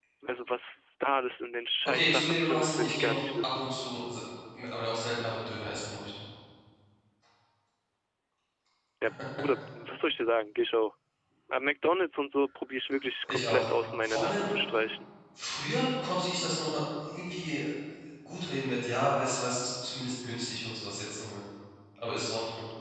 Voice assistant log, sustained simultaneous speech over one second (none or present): present